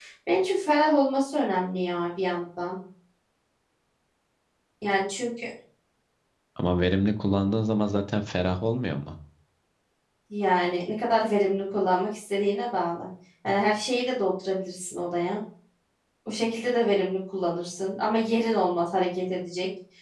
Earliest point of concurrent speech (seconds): none

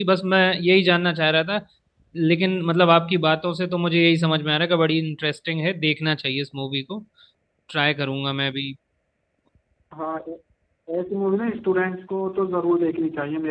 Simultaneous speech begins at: none

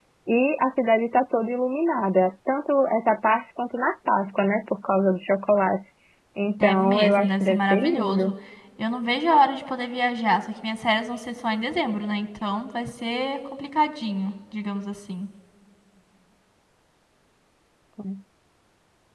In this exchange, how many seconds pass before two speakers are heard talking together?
6.6 s

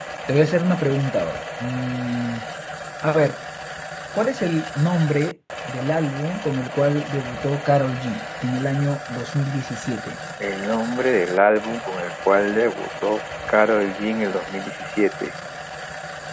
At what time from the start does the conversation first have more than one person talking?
none

